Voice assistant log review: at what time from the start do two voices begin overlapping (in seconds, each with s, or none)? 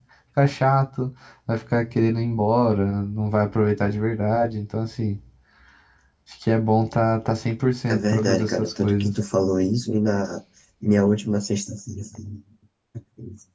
7.9 s